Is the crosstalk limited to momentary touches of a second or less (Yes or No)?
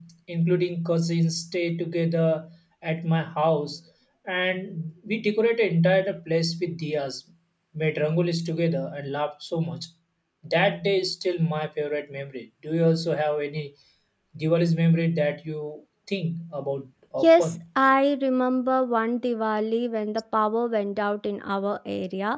Yes